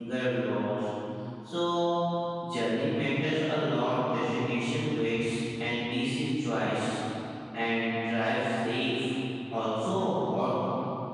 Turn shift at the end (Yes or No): No